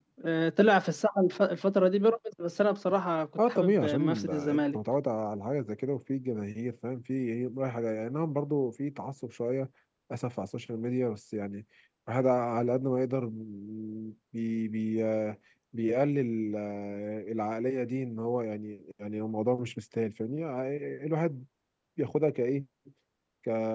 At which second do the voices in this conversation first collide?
3.4 s

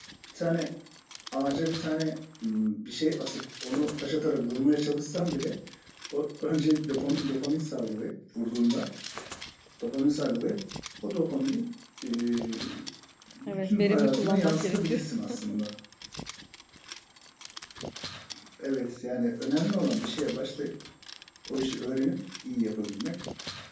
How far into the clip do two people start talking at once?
13.5 s

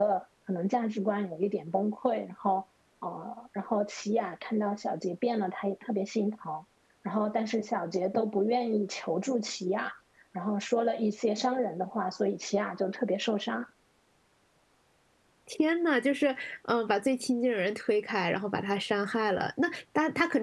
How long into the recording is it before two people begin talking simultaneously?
none

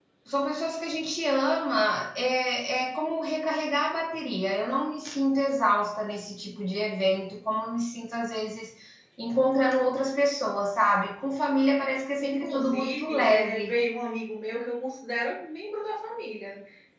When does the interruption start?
12.2 s

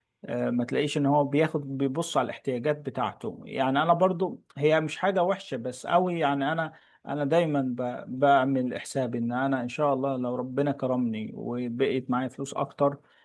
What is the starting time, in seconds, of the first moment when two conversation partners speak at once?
none

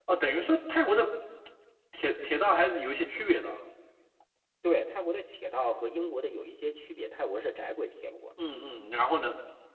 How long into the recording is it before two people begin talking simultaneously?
none

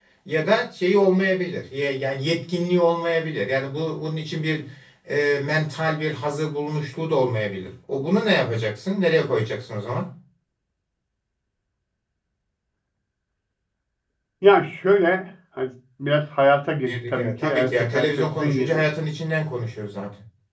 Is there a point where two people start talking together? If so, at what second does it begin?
16.9 s

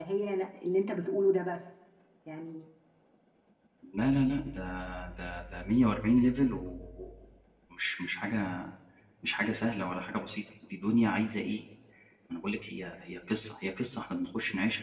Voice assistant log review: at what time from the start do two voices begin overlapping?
none

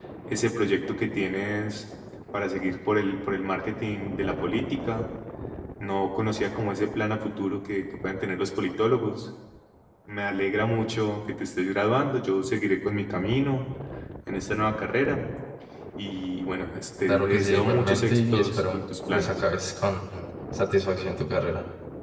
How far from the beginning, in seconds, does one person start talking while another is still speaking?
17.1 s

